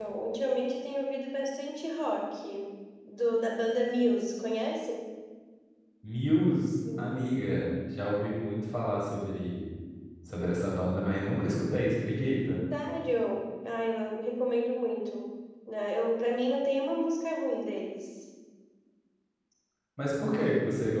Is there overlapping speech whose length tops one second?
No

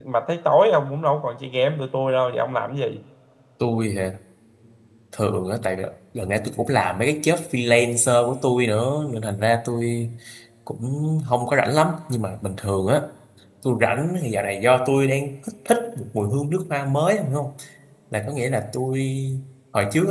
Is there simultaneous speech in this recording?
No

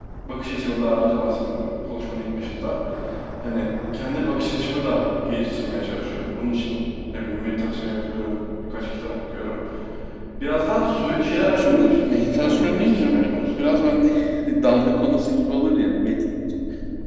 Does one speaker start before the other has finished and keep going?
Yes, from 11.3 s

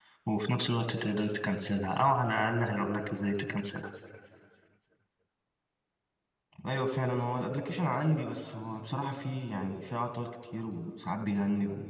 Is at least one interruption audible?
No

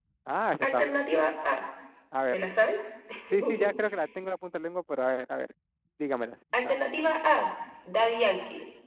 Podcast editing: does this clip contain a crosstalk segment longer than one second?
No

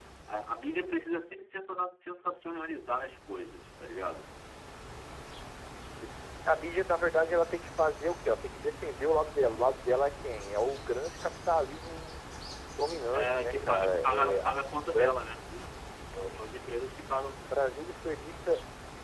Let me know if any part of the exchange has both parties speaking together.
Yes, from 13.1 s

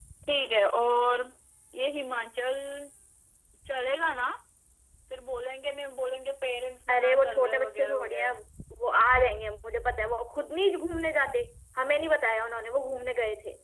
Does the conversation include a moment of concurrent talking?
Yes, from 6.9 s

